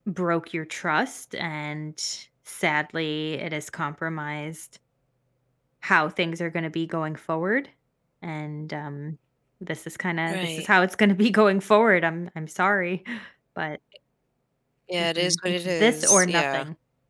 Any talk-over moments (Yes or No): Yes